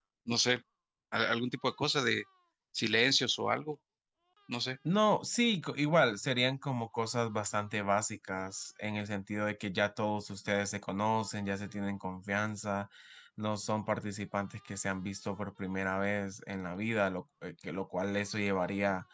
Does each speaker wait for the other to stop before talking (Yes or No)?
Yes